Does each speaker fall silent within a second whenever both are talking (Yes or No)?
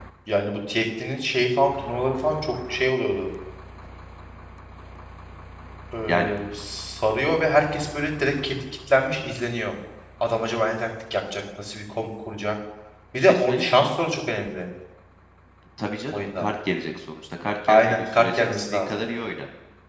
No